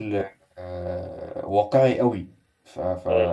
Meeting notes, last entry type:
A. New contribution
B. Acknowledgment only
B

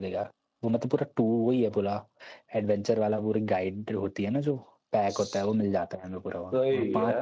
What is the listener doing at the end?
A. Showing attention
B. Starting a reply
A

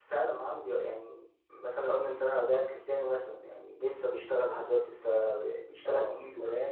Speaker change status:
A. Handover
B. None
A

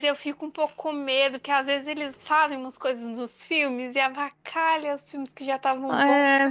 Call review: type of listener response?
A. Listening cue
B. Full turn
B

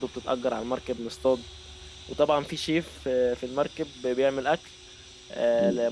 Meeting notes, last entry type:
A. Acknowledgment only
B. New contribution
A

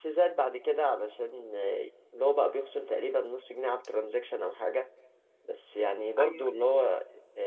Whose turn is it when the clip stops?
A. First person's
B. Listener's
A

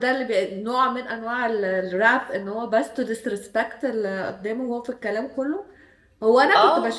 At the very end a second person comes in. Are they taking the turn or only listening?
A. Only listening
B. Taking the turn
A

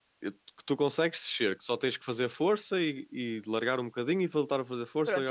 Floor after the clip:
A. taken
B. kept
A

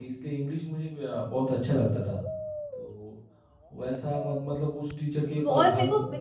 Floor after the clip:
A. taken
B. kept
A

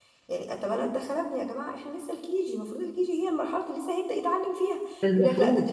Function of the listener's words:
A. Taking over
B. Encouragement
B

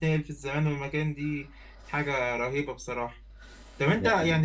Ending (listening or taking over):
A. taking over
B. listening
B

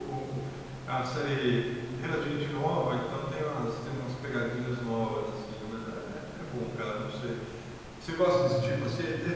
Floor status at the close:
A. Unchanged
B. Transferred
A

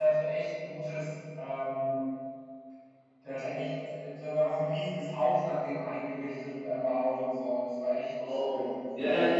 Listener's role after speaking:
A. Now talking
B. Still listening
A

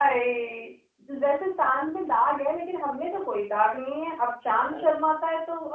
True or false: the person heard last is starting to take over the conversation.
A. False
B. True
A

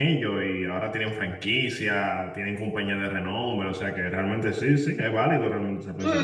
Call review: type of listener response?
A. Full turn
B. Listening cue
A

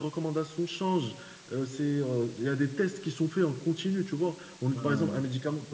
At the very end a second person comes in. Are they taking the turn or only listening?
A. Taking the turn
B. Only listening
B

